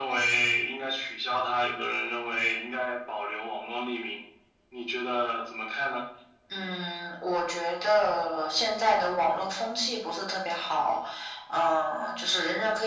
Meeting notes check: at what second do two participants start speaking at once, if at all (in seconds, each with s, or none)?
none